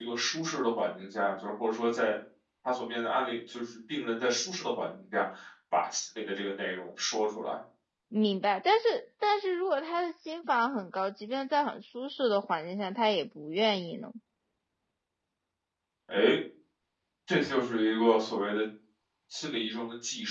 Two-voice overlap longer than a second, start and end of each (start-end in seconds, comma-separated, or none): none